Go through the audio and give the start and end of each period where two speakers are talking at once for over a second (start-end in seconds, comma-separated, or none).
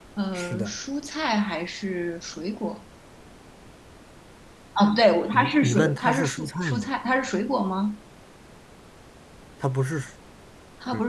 5.3-6.9